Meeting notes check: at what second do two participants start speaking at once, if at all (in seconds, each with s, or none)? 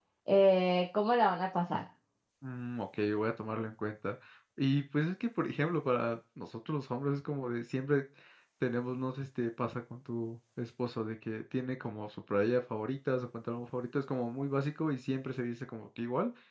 none